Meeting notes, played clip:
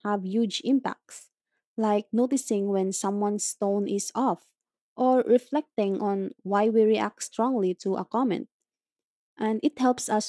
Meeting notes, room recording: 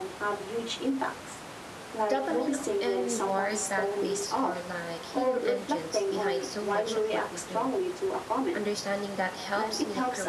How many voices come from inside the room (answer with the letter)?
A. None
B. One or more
B